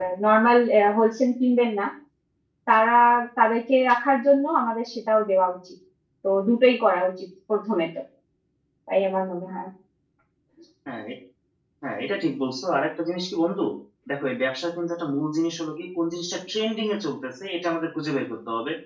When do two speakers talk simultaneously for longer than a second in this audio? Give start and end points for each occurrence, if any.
none

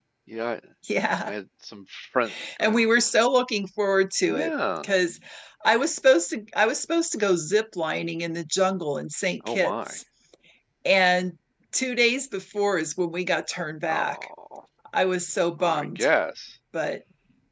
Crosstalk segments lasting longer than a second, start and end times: none

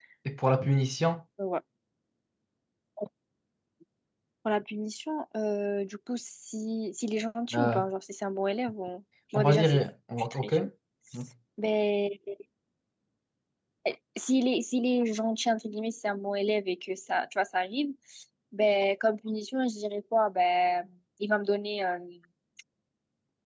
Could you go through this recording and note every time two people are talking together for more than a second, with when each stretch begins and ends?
none

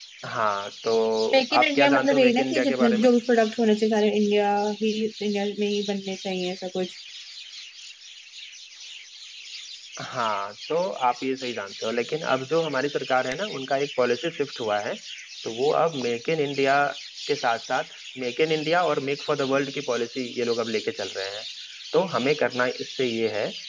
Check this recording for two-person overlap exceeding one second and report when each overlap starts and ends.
1.6-3.1

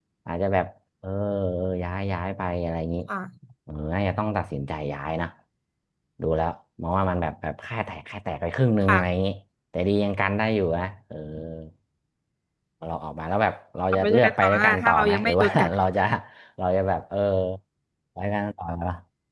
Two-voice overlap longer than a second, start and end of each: 13.9-15.7

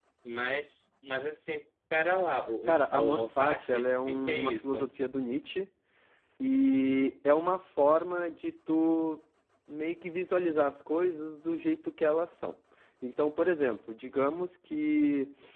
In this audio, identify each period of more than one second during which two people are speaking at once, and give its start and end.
2.7-4.8

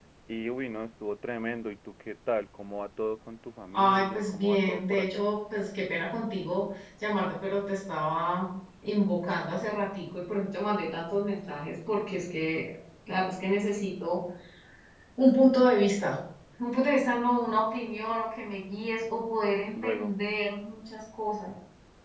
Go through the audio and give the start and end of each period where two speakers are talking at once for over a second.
3.7-5.2

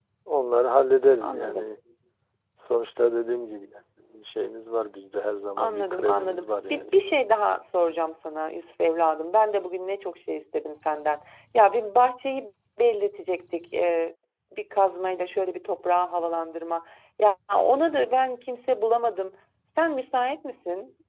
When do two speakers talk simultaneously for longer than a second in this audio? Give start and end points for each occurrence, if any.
5.6-7.0

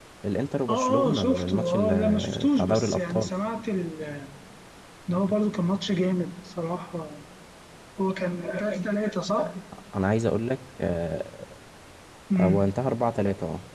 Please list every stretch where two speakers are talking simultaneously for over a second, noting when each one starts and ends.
0.7-3.3

